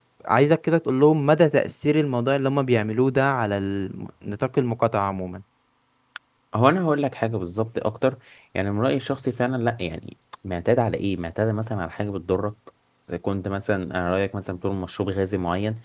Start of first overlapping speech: none

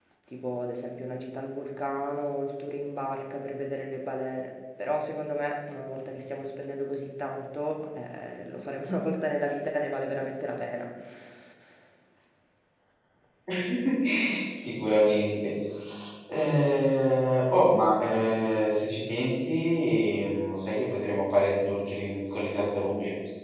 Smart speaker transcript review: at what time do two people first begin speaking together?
none

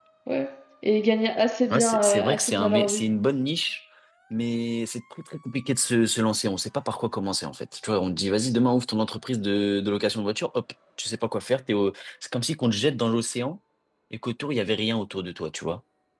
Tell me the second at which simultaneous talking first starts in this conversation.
1.7 s

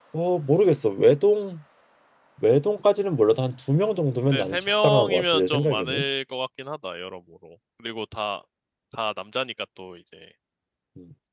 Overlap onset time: 4.3 s

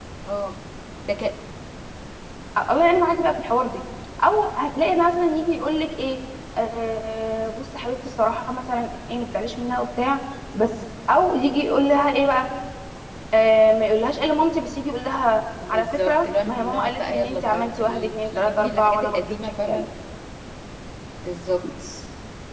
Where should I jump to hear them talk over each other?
15.6 s

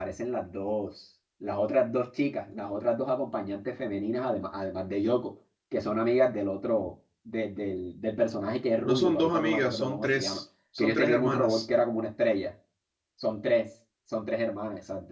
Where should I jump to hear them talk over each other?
8.8 s

